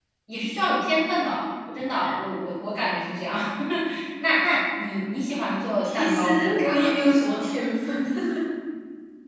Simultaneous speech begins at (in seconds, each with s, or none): 5.8 s